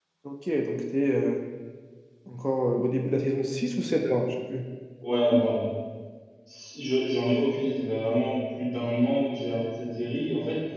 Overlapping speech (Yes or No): No